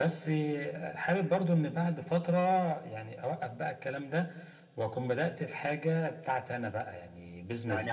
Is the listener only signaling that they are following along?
No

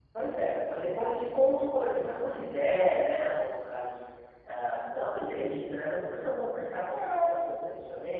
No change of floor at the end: Yes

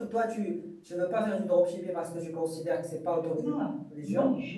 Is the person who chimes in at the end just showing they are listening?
No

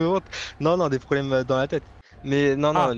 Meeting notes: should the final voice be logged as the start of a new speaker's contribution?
No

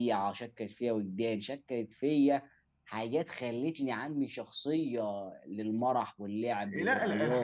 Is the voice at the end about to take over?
Yes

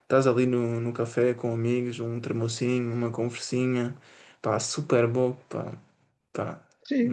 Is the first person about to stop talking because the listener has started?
Yes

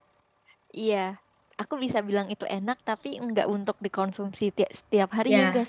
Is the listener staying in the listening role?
No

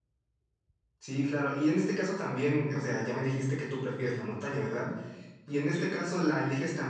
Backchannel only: Yes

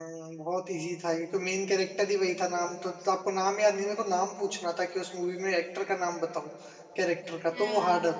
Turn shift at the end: Yes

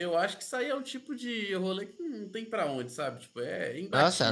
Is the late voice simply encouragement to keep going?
No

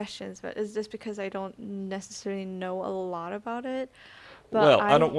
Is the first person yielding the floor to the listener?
Yes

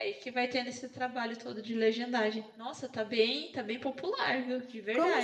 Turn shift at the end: Yes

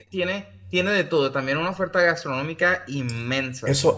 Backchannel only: No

